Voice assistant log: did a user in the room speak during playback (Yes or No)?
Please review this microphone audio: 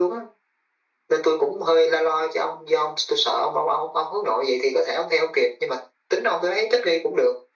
No